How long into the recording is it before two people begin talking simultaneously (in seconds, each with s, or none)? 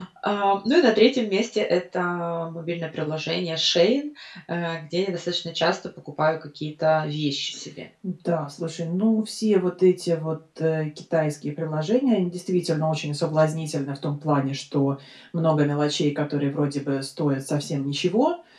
none